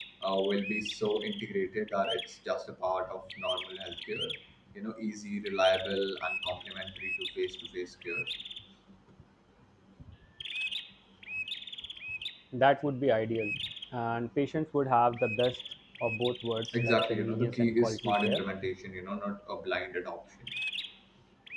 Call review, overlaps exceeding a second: present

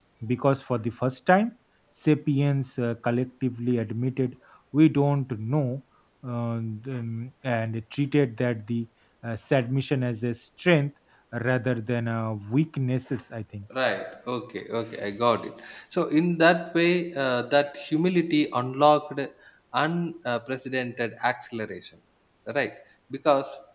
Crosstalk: none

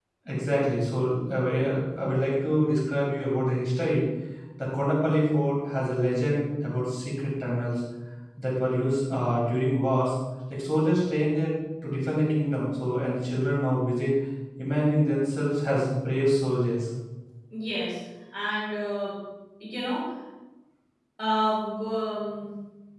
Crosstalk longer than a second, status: none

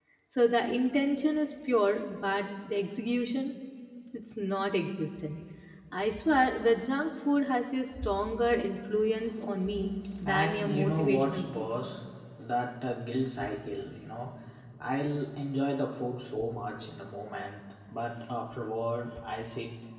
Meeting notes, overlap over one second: present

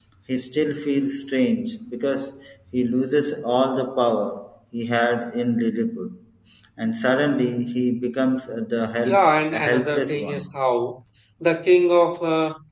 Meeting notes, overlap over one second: present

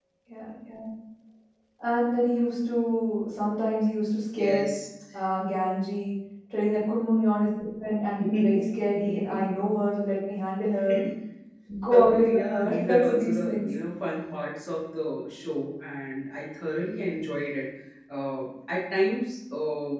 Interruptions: present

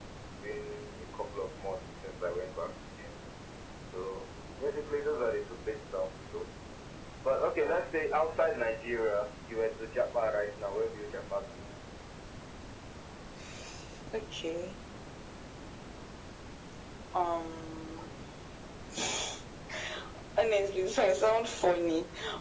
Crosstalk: none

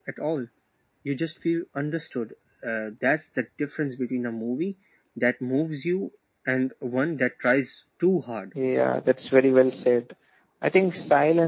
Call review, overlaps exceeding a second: none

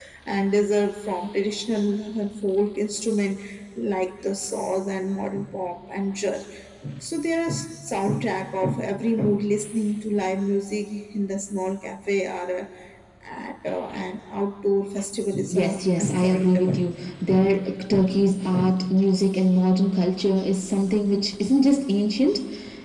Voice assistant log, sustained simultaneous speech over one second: present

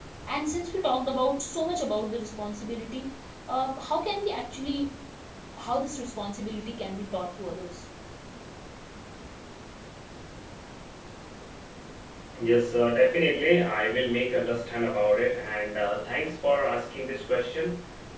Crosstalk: none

